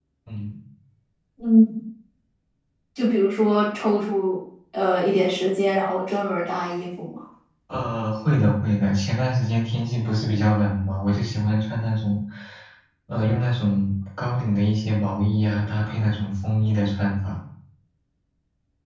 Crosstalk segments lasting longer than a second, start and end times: none

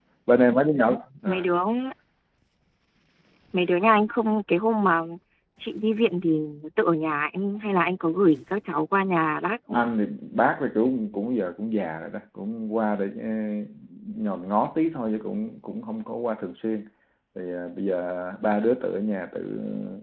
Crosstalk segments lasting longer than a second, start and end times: none

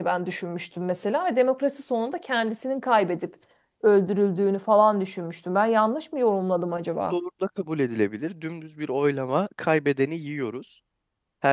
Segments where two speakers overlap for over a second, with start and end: none

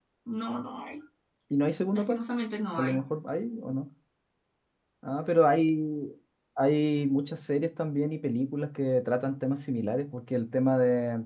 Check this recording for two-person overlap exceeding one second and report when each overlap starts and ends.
none

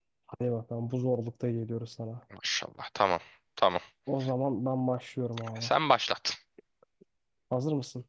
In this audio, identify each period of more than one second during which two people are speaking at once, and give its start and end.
none

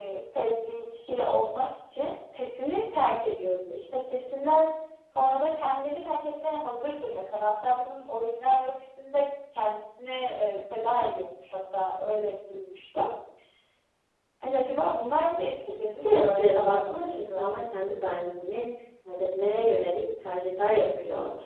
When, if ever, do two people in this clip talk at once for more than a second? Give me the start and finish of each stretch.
15.8-17.5

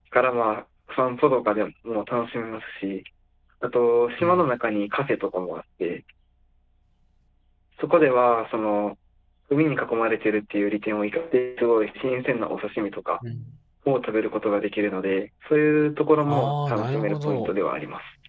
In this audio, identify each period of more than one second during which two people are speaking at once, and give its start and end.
16.3-17.5

